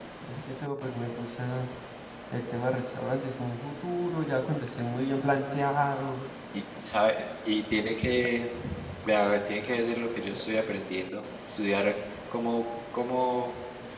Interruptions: none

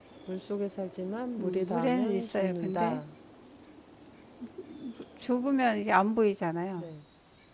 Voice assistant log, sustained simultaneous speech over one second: present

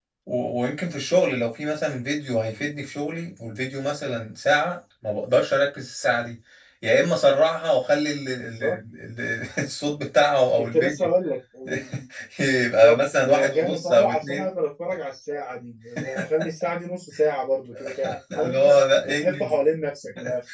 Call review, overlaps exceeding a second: present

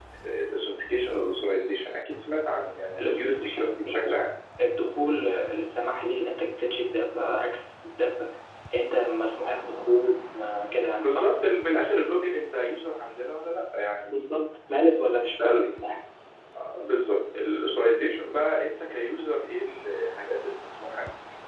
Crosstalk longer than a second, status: present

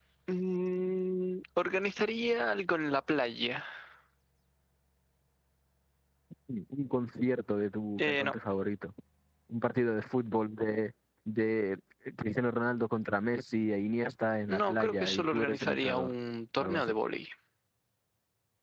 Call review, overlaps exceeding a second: present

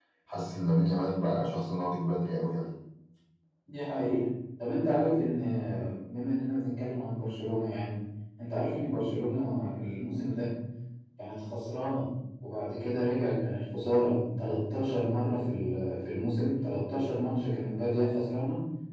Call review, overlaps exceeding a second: none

